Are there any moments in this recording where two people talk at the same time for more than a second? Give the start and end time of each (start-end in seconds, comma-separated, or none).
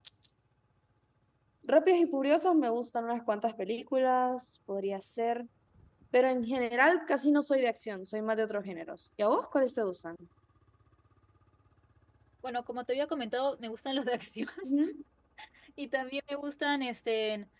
none